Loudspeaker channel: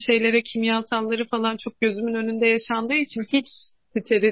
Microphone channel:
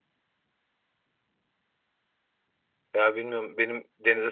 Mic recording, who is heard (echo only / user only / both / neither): user only